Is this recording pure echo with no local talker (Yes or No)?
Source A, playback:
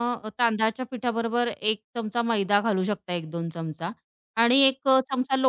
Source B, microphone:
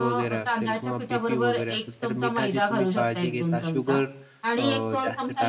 No